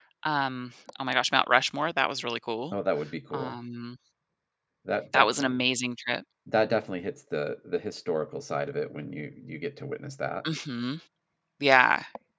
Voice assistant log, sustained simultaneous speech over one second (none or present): none